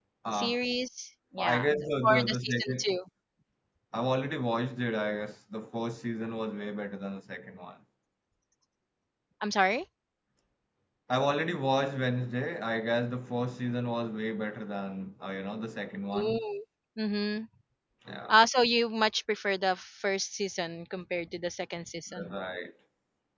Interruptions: present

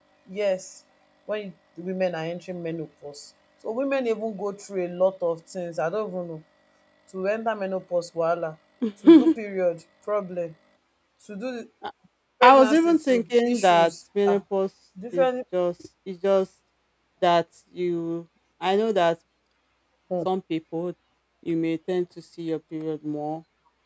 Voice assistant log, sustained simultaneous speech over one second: present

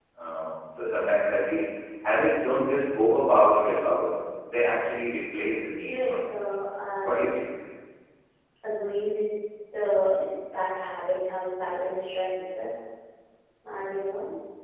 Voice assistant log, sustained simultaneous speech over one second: none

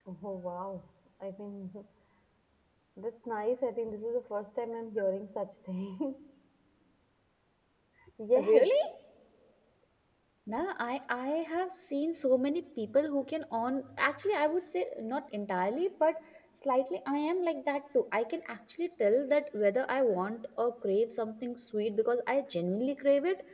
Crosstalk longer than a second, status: none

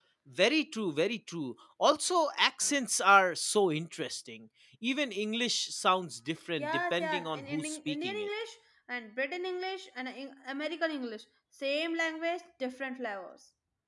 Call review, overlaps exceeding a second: present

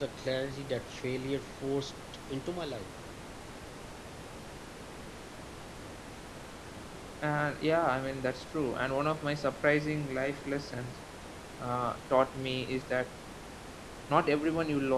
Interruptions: none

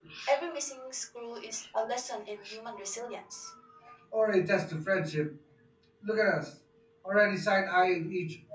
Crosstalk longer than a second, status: none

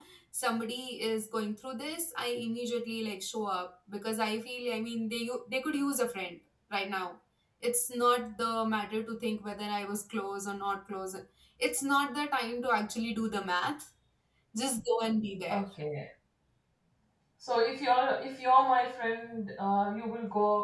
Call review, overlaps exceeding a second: none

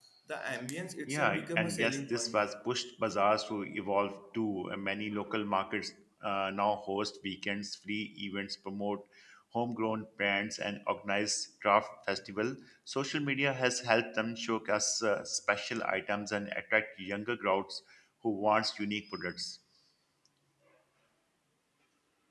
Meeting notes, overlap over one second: present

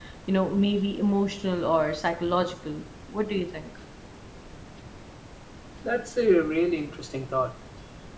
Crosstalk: none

